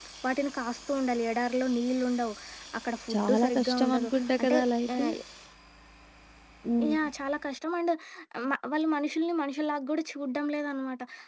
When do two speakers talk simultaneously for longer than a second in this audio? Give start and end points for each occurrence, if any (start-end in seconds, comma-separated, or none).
3.1-4.6